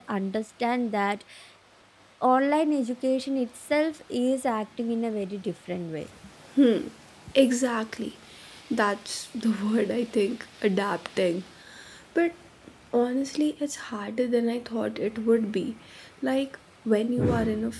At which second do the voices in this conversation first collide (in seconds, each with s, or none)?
none